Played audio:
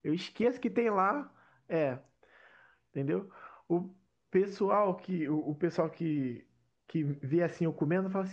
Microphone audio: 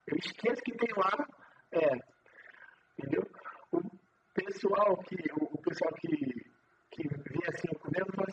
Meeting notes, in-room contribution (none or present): none